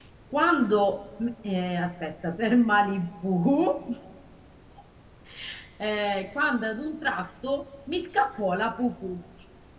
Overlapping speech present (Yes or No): No